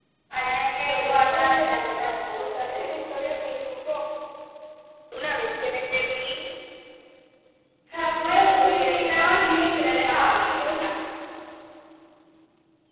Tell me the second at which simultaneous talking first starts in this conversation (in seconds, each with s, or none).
0.8 s